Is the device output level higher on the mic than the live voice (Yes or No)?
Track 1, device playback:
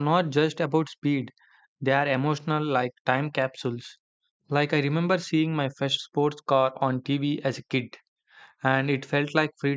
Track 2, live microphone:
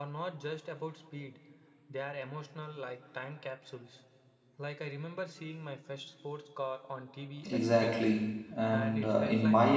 No